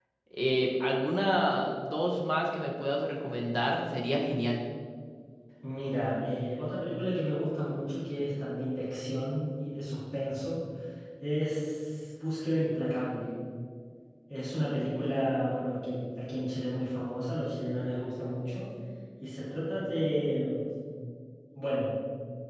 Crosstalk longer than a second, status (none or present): none